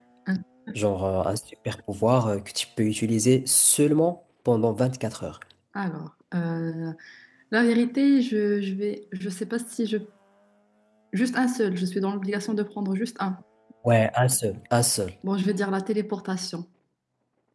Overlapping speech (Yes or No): No